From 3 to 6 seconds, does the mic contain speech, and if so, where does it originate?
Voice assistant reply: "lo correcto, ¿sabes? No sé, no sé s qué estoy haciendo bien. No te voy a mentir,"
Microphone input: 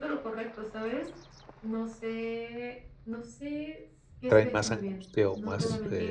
both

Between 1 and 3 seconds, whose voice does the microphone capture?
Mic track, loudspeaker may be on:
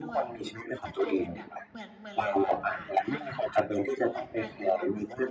both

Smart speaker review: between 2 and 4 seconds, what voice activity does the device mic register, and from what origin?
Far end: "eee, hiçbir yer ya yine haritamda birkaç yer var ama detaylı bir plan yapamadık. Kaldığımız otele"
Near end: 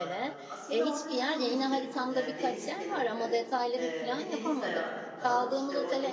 both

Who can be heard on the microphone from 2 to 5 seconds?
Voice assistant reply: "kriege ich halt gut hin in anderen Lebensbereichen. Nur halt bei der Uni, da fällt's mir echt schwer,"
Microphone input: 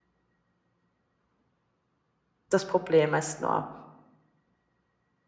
user only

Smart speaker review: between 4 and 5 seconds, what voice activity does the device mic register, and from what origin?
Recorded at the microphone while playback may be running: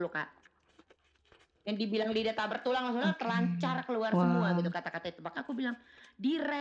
both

